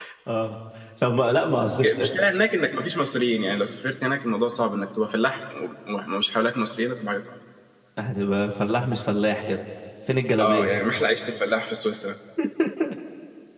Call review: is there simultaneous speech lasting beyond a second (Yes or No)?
No